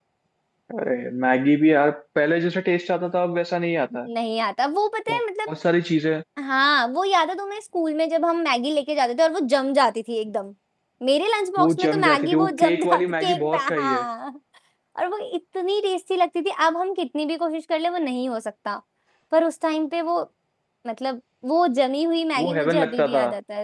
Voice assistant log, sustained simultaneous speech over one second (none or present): present